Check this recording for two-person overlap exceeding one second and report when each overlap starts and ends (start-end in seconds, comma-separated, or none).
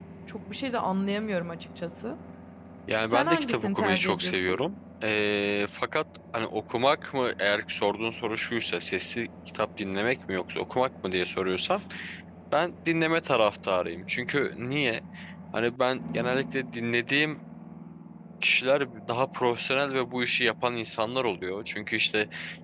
3.1-4.6